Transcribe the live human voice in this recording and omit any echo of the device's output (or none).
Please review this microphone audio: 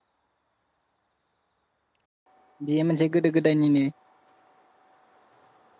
बेयो मोनसे गोदो गोदायनिनो